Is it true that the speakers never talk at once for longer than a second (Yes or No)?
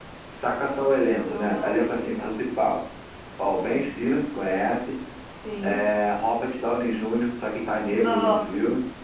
No